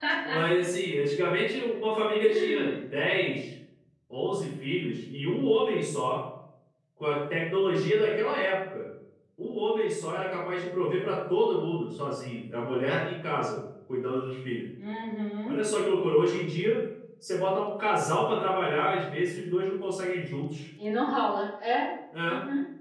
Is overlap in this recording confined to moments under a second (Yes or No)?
Yes